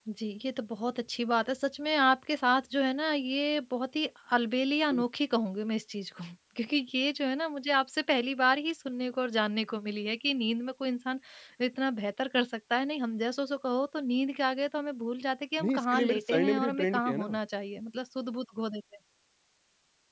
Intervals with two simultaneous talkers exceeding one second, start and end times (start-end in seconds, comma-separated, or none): 15.6-17.4